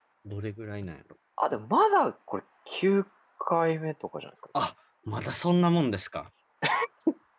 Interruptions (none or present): none